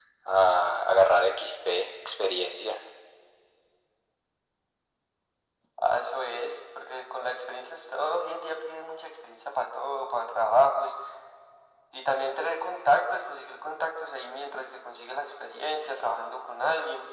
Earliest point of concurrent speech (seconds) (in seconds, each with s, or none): none